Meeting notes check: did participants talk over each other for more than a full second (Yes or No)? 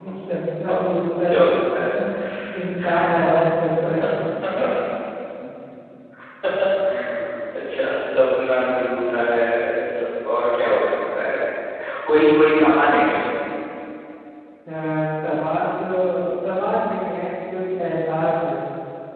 No